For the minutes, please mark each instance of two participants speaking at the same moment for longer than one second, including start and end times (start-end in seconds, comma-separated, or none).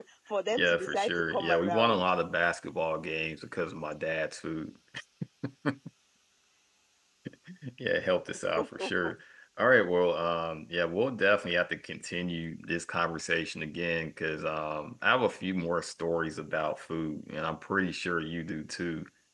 0.6-2.0